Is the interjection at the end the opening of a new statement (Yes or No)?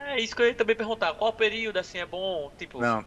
No